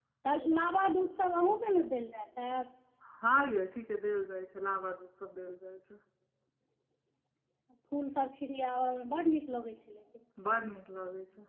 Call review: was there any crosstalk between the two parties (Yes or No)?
No